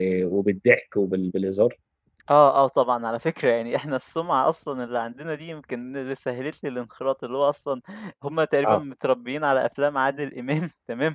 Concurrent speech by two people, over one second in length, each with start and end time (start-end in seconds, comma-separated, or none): none